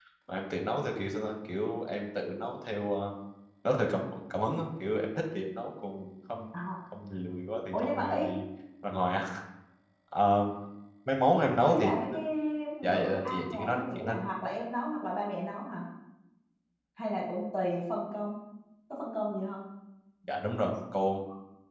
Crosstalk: present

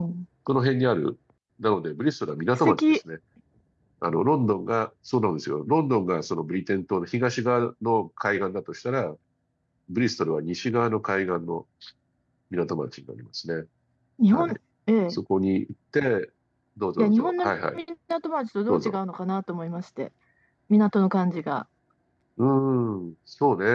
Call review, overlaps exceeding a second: none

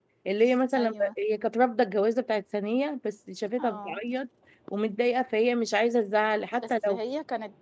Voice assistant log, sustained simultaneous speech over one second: none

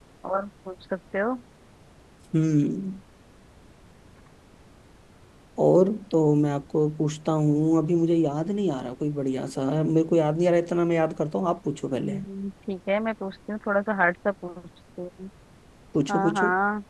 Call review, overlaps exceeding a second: none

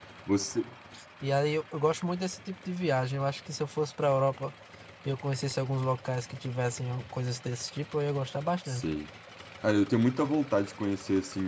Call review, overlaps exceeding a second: none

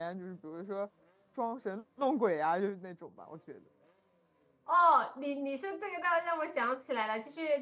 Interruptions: none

